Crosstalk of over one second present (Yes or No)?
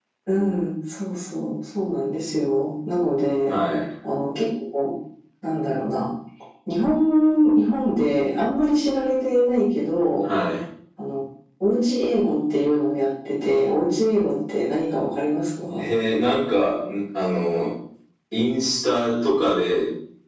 No